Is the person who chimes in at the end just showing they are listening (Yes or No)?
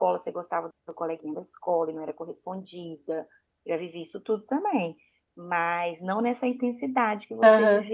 No